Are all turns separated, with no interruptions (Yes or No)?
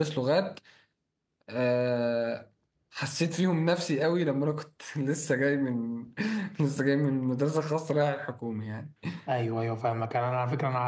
Yes